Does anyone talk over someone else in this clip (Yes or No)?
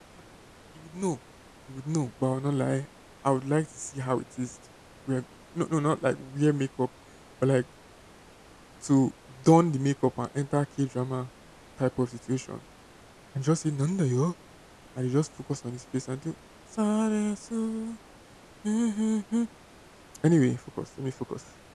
No